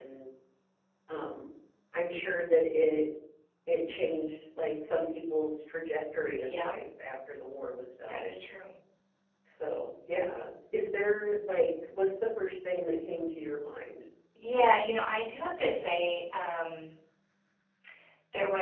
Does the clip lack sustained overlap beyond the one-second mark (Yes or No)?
Yes